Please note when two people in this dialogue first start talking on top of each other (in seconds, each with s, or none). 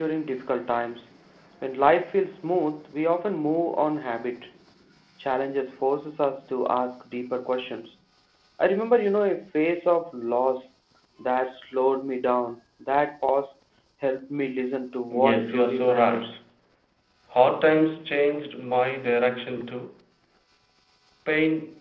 15.1 s